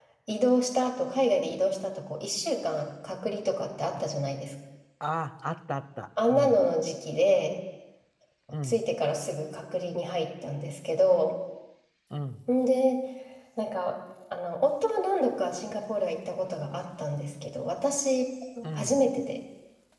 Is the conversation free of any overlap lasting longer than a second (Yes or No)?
Yes